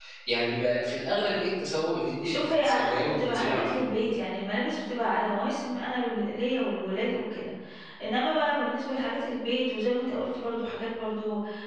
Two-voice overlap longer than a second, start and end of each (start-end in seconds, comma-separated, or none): 2.2-3.9